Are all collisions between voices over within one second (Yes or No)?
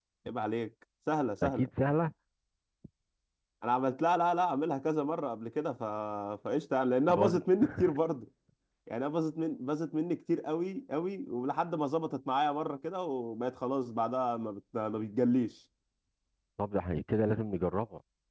Yes